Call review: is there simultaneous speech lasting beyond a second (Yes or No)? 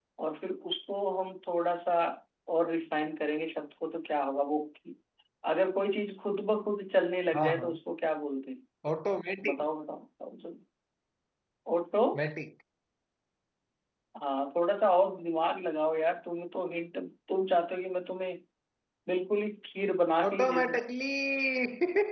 No